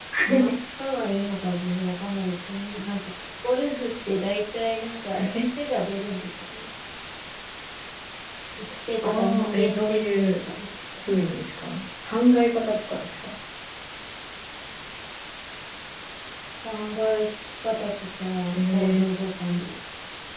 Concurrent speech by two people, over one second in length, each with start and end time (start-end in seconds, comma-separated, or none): 9.0-10.4